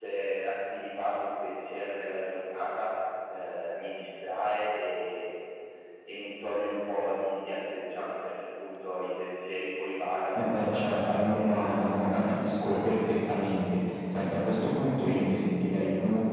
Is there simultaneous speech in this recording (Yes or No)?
Yes